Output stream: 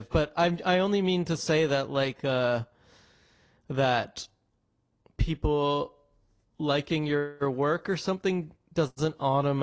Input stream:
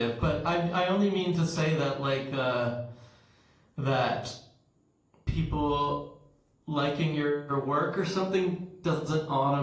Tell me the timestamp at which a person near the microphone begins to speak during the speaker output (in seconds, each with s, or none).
none